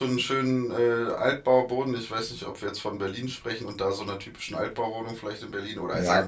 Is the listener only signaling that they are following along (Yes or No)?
No